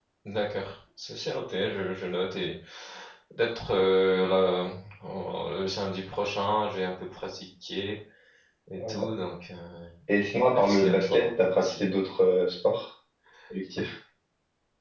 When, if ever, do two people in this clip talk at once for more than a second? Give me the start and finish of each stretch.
10.4-11.8

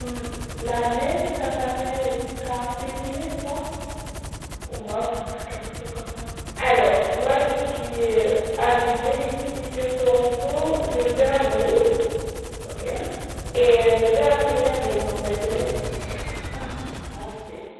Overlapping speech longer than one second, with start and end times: none

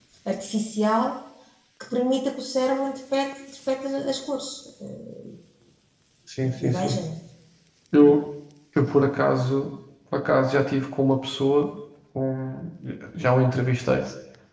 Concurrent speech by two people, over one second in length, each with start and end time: none

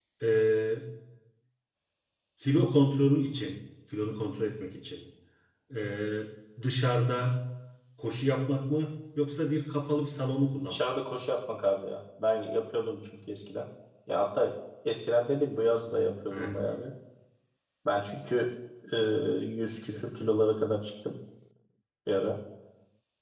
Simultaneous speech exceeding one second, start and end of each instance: none

